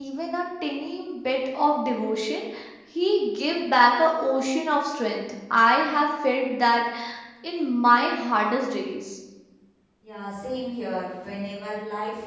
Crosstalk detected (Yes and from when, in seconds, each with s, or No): No